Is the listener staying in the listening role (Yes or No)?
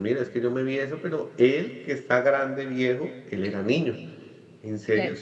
Yes